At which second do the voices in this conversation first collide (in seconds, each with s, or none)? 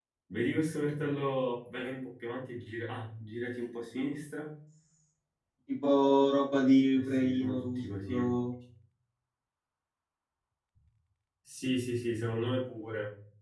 6.9 s